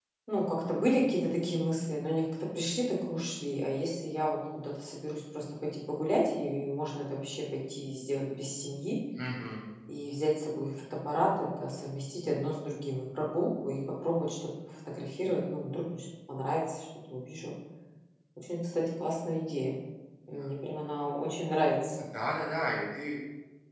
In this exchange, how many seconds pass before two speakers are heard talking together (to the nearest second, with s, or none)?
none